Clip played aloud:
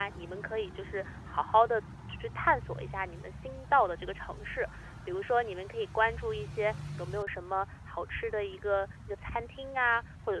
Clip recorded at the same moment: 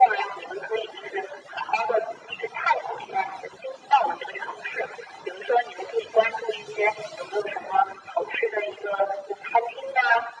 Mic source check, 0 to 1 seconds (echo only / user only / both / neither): echo only